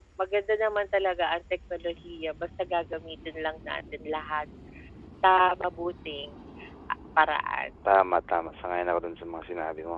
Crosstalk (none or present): none